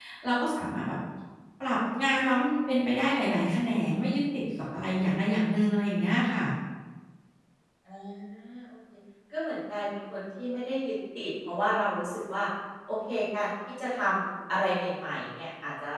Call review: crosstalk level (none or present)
none